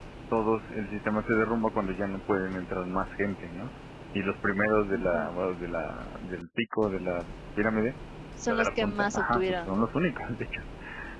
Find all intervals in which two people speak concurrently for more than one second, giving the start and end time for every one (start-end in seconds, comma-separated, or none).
8.5-9.8